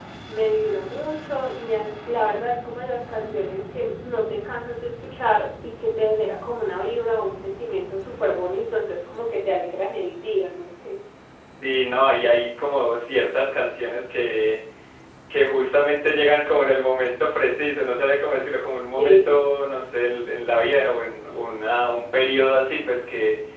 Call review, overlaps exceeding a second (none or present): none